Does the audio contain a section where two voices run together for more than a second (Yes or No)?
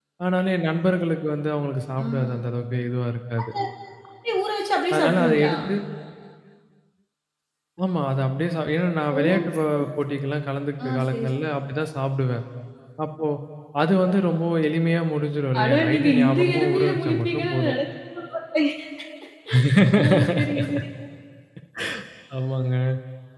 Yes